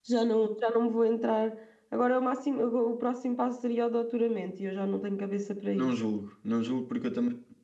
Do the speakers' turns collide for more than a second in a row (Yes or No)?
No